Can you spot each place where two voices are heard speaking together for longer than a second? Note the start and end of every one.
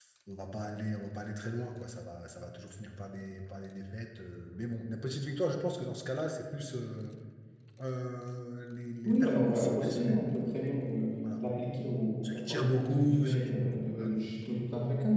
9.1-10.3, 12.2-14.2

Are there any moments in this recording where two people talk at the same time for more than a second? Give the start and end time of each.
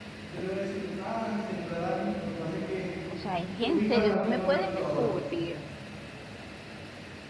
3.6-5.1

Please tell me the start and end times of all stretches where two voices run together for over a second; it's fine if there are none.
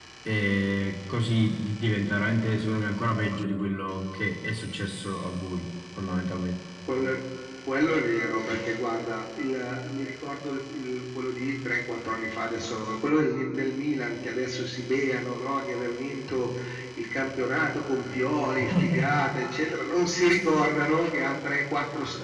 none

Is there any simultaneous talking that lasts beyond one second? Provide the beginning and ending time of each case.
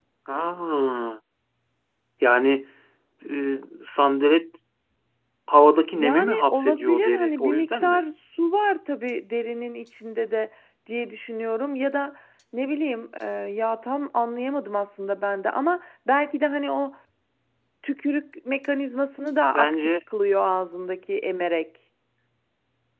5.9-8.0

